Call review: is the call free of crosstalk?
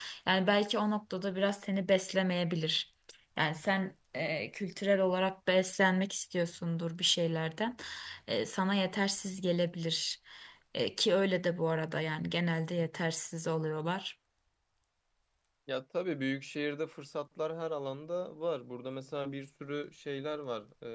Yes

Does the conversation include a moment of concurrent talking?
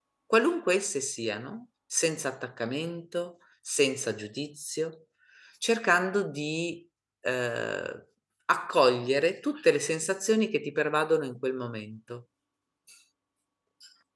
No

